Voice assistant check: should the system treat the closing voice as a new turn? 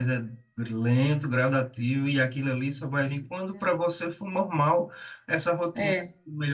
No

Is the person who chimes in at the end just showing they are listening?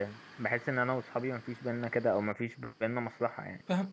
No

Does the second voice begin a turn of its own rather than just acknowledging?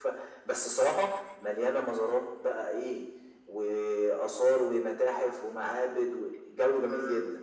Yes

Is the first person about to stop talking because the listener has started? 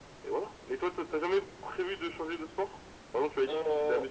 No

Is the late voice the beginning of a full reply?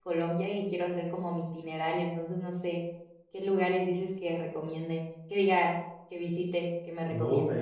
Yes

